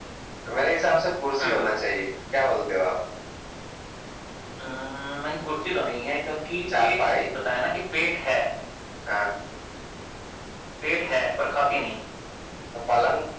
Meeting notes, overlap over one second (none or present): none